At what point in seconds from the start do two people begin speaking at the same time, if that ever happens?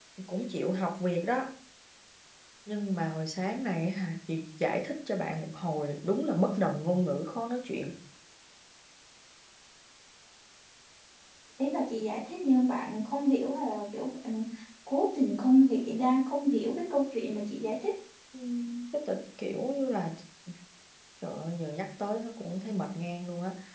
none

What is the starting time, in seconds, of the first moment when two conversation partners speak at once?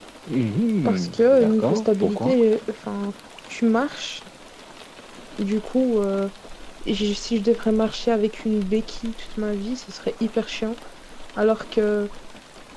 0.8 s

